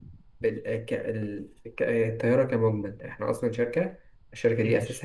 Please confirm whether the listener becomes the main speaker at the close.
No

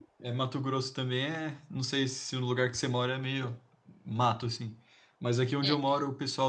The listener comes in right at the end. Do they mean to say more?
No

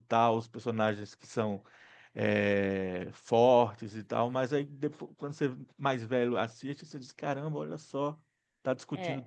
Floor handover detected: Yes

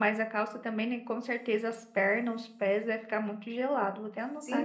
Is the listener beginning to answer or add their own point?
Yes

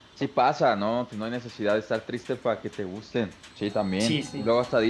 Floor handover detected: No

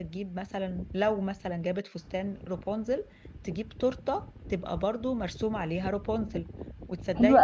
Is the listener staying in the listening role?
Yes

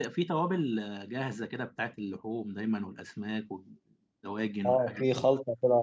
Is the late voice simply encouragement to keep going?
No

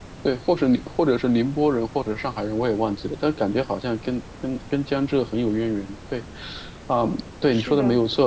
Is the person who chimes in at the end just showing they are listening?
Yes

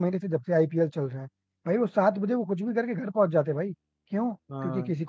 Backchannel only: Yes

